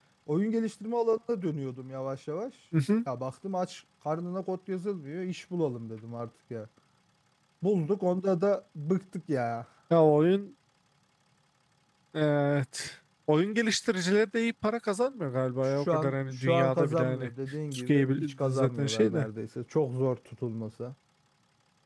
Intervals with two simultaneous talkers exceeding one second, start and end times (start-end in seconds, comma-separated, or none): 15.6-17.3, 17.7-19.3